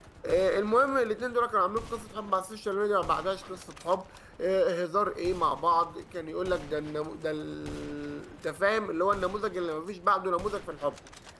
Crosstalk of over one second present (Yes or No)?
No